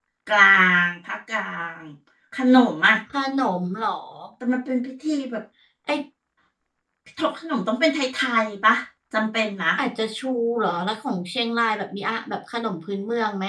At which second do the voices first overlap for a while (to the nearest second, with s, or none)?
none